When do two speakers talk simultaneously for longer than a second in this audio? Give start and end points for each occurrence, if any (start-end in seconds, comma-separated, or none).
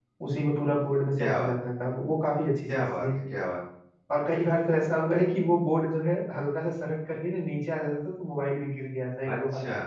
none